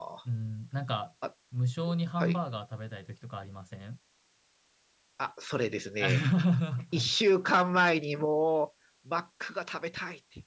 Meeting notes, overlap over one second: none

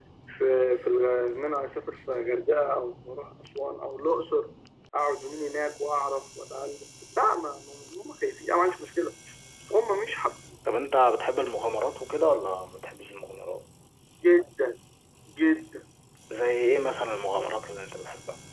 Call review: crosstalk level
none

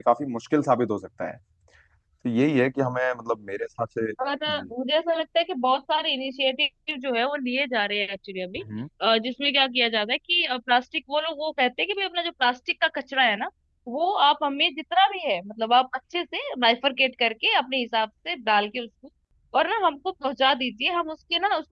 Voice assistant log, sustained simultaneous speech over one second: none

